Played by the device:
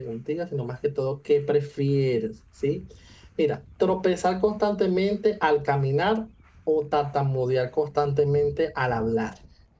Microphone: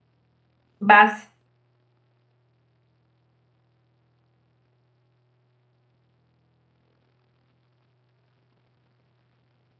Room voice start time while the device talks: 0.8 s

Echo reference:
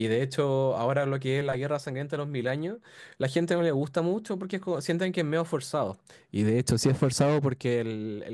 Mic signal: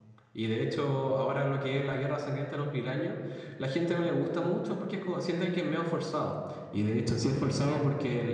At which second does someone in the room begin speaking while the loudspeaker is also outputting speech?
none

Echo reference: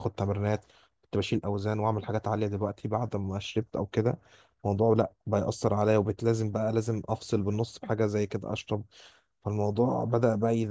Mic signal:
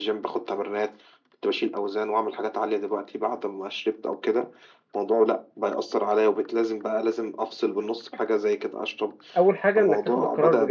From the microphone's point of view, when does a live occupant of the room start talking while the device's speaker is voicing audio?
9.4 s

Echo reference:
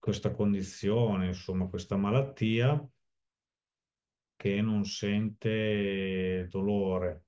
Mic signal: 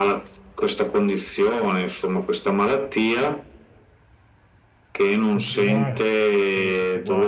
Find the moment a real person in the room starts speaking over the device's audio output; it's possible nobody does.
5.3 s

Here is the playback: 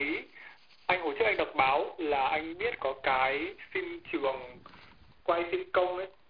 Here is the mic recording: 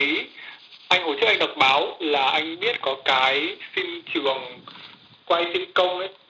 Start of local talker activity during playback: none

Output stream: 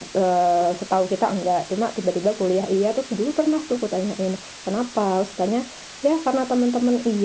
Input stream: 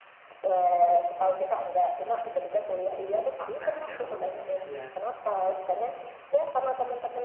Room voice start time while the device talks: 3.4 s

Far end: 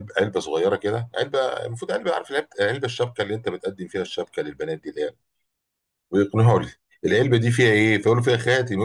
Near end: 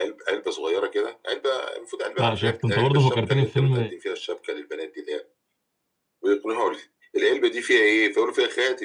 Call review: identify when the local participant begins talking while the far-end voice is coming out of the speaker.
2.2 s

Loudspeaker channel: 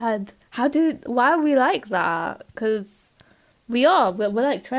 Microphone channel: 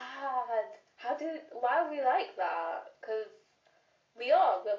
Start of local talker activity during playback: none

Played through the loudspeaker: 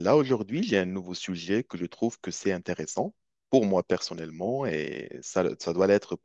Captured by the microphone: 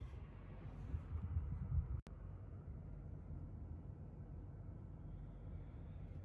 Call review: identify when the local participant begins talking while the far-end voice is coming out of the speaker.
none

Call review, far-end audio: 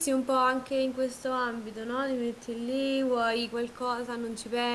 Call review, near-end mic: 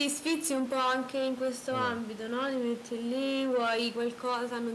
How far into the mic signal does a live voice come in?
1.7 s

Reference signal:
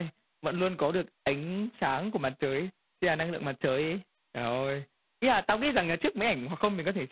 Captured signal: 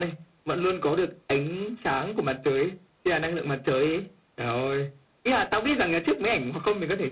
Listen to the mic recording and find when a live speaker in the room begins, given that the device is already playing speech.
none

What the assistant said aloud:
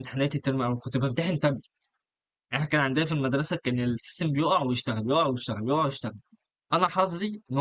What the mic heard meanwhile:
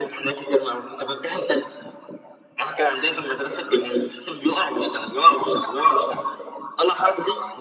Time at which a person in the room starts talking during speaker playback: none

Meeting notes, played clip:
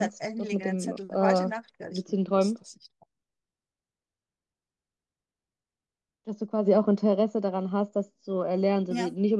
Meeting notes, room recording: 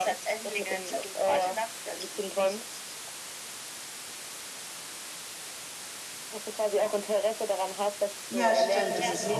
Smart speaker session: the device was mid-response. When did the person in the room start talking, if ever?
8.3 s

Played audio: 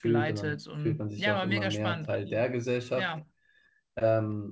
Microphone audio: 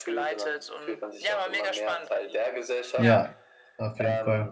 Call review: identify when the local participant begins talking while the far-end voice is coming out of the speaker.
3.0 s

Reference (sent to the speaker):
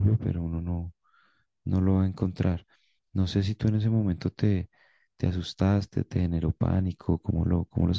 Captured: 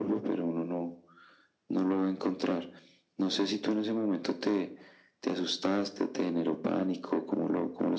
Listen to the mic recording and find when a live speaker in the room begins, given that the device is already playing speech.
none

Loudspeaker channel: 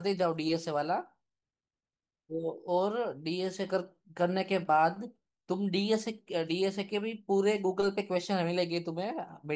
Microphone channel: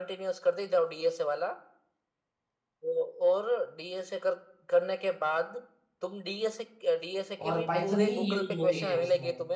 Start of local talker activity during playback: 7.5 s

